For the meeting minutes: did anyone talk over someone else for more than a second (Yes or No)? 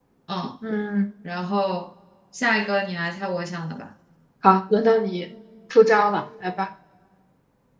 No